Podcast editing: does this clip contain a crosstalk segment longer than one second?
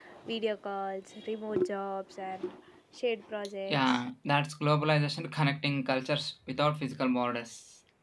No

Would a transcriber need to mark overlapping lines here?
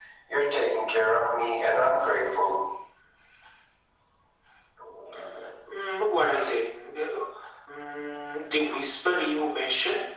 No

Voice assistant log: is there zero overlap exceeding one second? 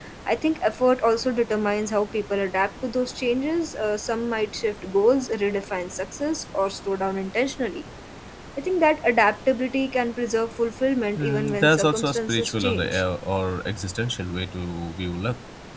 No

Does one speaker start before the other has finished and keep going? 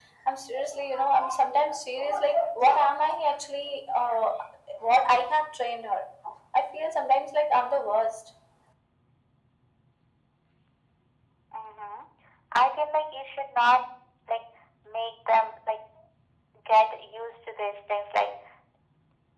No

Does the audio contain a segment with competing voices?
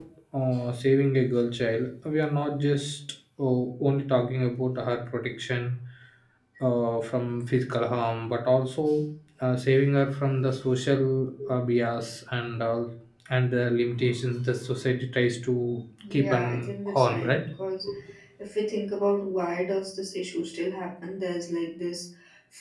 Yes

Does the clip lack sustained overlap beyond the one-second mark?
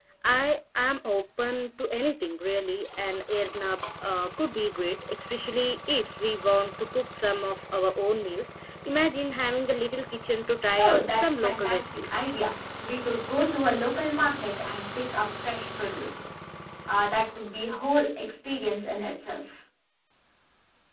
No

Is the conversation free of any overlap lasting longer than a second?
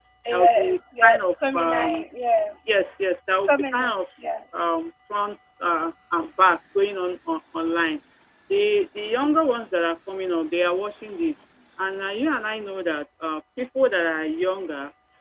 No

